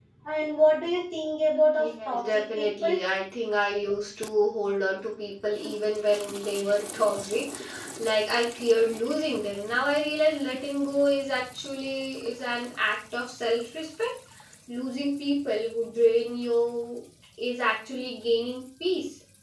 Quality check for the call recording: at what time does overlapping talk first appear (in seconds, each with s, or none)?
1.8 s